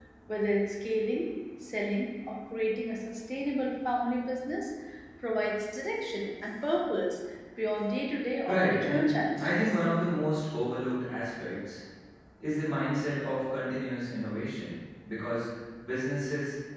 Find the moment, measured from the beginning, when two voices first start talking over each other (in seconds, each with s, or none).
8.5 s